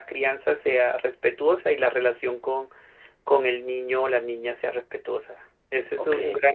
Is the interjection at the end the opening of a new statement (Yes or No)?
No